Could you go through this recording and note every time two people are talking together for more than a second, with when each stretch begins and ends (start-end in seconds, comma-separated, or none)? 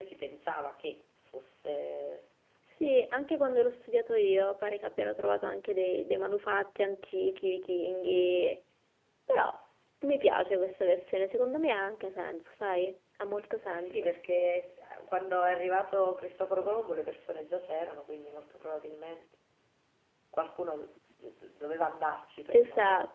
none